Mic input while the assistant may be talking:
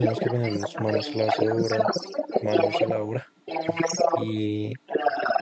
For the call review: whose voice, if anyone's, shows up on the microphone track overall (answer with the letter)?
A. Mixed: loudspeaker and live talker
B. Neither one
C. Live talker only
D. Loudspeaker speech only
A